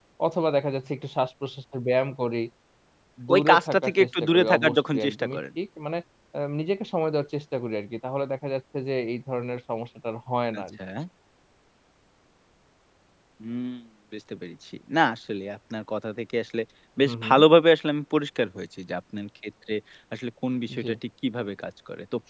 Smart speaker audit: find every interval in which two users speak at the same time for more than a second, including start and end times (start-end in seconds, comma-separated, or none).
3.3-5.4